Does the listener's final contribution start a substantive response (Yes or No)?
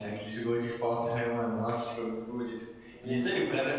No